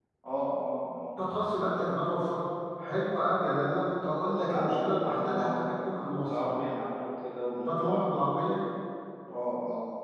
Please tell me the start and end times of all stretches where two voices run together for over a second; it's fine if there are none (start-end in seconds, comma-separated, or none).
4.4-5.7